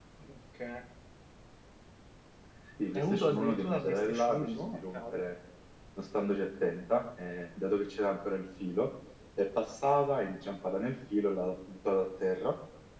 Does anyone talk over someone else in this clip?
Yes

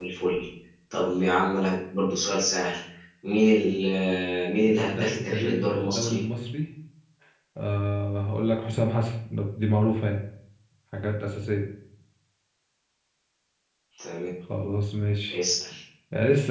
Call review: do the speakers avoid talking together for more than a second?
No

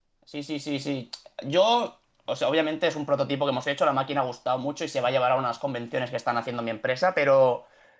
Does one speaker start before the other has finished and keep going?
No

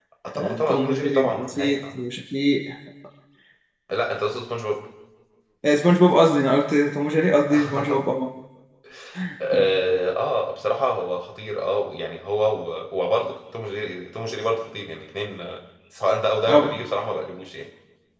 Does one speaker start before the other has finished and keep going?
Yes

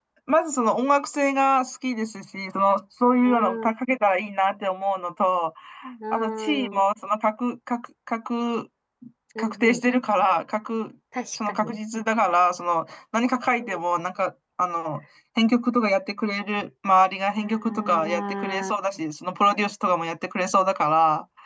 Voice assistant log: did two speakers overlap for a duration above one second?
Yes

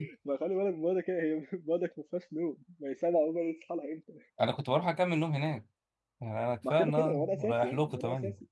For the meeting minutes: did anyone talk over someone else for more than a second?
Yes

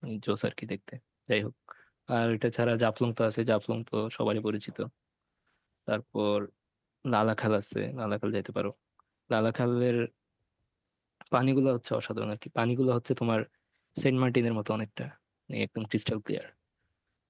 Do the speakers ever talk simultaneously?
No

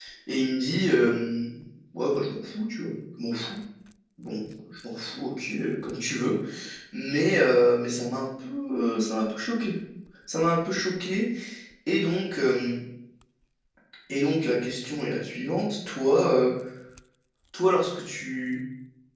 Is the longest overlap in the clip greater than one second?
No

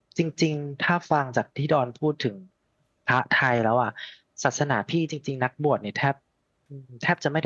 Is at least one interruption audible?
No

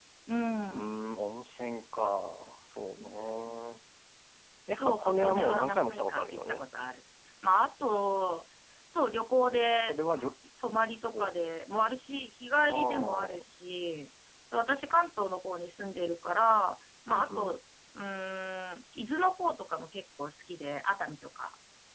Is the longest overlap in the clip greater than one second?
Yes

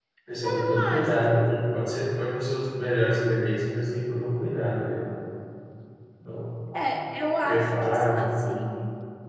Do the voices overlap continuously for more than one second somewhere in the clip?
Yes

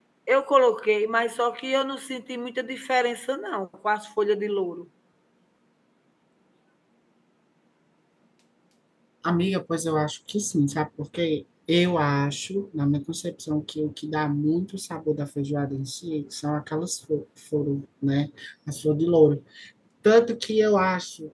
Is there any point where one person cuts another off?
No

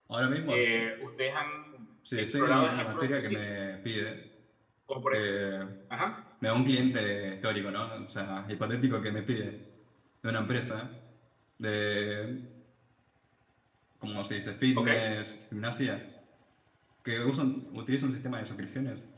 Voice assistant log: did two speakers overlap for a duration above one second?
Yes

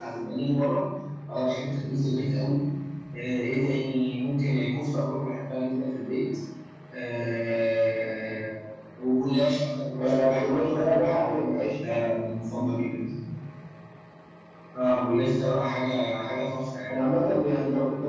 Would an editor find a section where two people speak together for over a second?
Yes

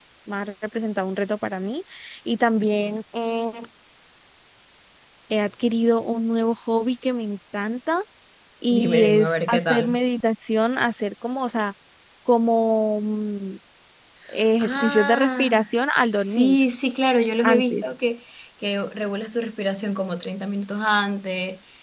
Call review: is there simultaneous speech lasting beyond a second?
Yes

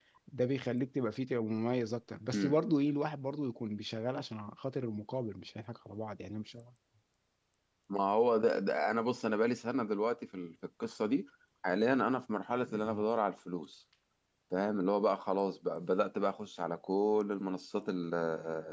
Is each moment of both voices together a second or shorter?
Yes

